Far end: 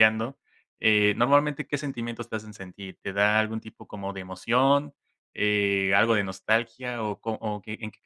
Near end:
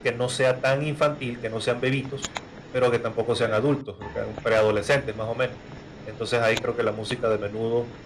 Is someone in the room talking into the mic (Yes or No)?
Yes